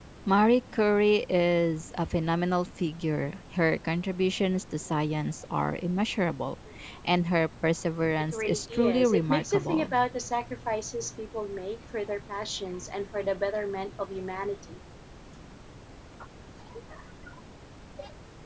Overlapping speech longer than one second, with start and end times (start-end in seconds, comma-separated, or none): 8.3-9.9